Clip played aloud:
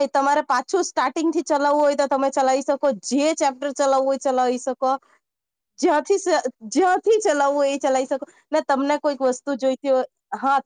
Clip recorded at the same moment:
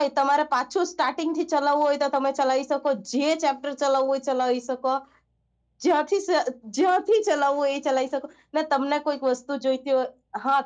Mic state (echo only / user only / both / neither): echo only